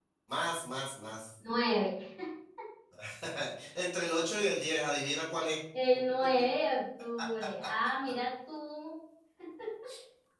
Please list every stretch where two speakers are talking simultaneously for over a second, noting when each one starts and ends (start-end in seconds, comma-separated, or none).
none